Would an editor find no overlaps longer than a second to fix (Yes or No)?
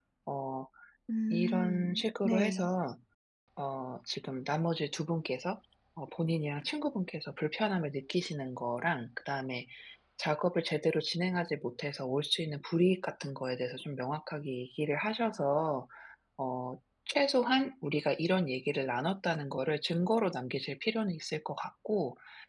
No